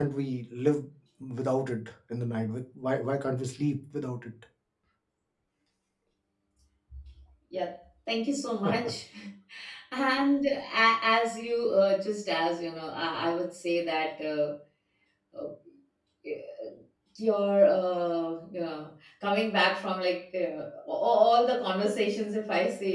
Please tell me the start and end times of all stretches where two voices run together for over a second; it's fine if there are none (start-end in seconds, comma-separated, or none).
none